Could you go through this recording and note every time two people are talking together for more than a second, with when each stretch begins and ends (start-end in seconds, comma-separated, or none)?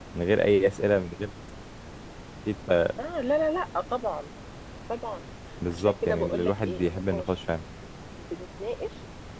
5.7-7.3